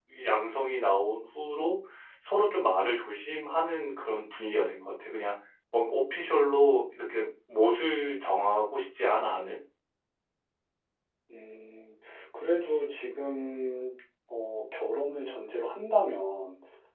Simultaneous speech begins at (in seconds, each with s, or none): none